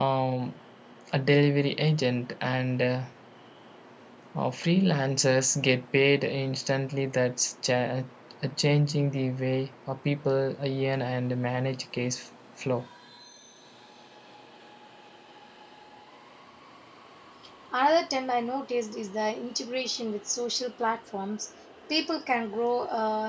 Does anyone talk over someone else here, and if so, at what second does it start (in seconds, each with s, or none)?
none